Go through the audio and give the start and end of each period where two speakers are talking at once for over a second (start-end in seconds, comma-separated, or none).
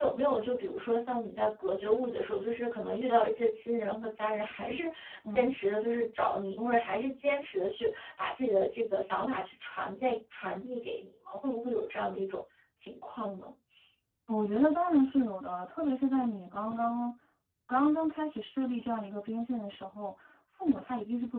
none